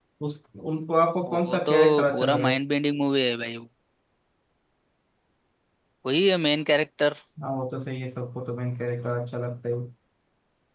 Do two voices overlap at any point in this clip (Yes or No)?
Yes